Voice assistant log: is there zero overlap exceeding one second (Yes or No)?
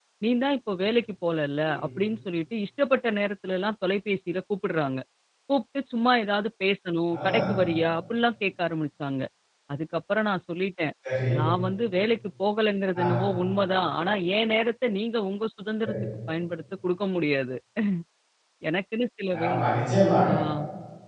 Yes